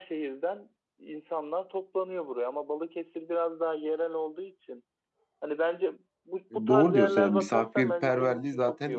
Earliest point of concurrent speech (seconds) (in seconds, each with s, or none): 6.5 s